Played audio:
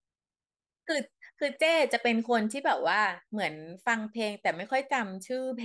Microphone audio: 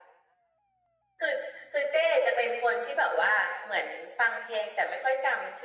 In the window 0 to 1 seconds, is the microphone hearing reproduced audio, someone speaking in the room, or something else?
neither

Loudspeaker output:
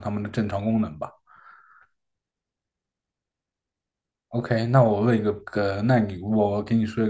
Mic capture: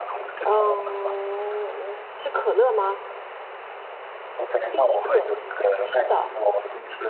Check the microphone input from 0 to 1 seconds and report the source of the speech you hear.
both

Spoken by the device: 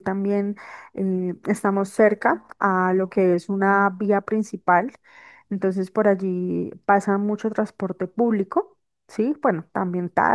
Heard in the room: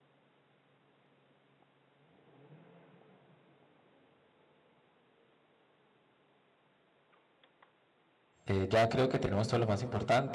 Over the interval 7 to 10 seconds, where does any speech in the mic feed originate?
user only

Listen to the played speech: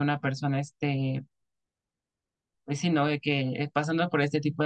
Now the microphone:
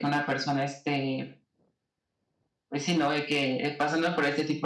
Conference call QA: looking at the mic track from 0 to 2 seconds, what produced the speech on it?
echo only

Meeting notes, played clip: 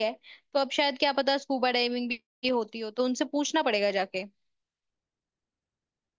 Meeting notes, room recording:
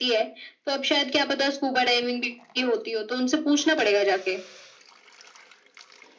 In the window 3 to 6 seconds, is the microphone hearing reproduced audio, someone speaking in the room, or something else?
echo only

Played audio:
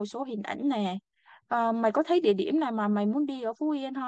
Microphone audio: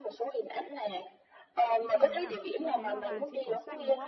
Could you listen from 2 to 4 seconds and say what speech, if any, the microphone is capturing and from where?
both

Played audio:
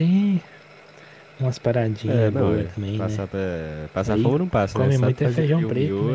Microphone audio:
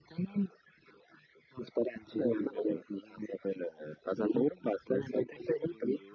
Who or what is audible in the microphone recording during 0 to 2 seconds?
echo only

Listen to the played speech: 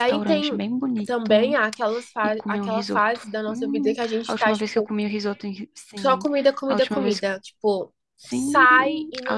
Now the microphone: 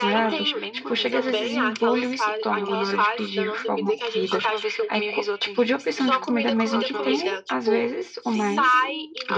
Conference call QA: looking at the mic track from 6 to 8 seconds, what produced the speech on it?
both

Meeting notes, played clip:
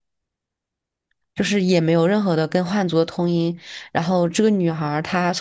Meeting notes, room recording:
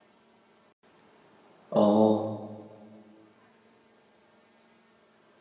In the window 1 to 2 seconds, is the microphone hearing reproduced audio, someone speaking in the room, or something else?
user only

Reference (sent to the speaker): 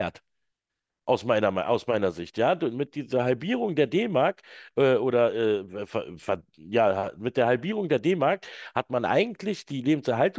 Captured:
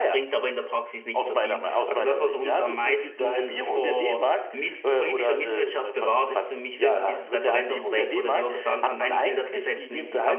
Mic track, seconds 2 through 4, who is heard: both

